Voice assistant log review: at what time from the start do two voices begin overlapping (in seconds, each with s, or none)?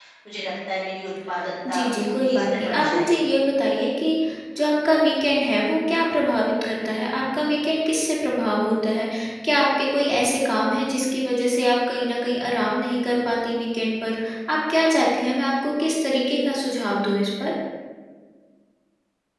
1.6 s